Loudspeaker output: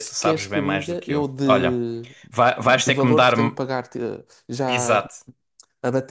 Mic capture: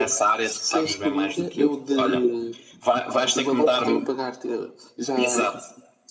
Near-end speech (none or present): none